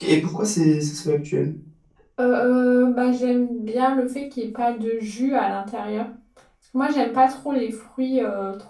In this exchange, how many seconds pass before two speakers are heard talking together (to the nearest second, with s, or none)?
none